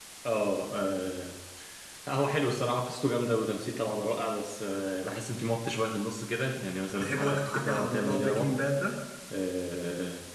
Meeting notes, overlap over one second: present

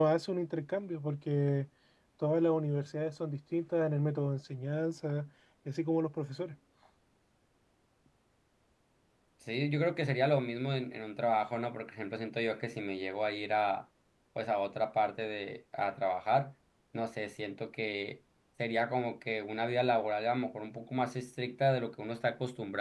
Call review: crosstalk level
none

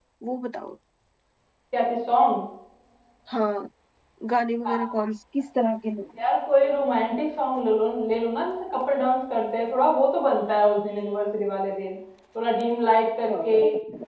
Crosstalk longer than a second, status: none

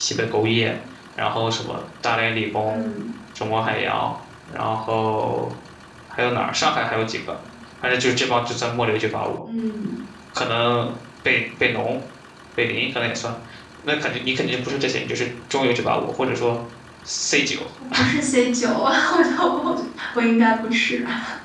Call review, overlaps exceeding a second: none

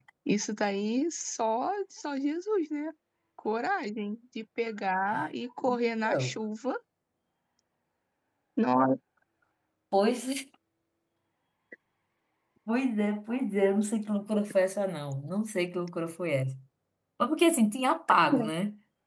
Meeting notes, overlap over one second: none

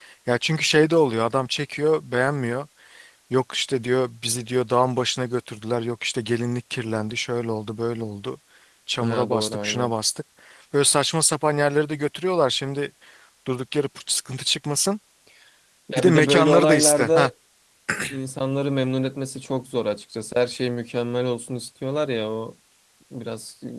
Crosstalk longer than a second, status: present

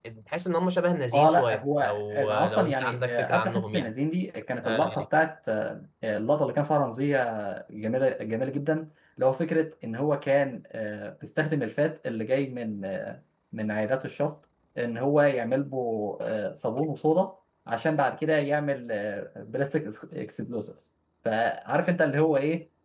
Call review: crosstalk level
present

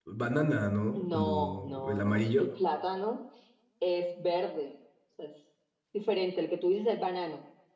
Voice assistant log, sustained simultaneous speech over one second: present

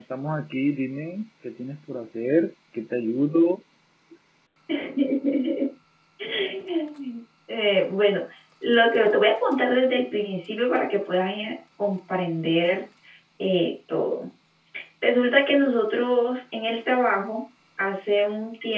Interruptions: none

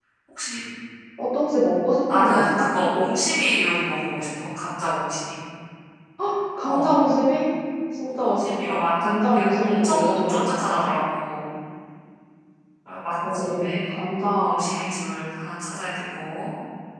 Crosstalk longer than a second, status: present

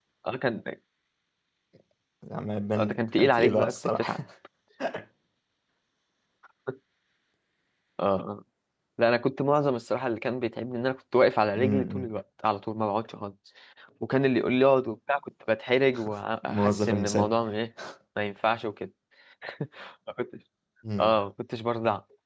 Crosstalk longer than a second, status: present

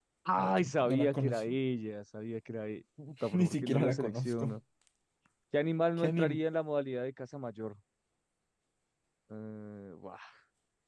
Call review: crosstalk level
present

